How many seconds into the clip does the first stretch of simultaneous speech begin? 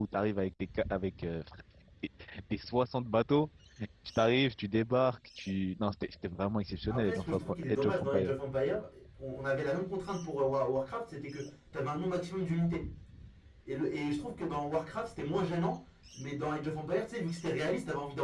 7 s

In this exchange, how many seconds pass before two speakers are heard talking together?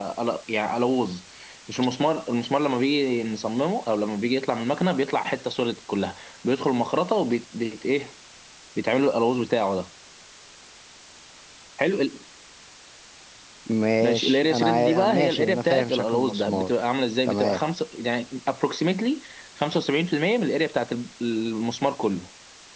14 s

